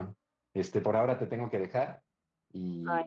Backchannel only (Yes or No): Yes